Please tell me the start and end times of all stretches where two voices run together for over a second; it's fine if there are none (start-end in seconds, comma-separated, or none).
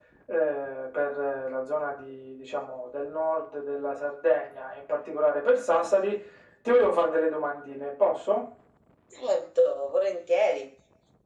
none